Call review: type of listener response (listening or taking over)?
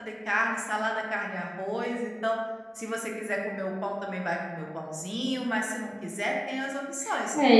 taking over